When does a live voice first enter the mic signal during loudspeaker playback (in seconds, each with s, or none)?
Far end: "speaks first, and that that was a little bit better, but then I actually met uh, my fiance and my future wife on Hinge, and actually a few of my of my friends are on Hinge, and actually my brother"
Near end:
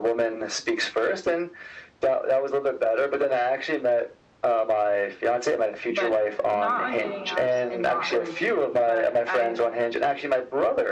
5.9 s